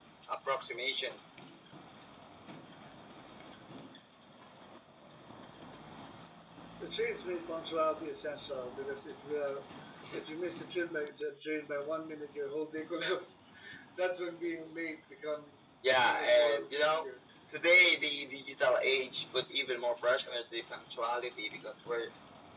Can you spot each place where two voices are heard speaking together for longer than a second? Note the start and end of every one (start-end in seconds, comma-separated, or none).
15.9-17.1